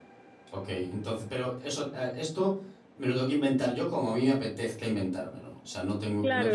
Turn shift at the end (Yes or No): Yes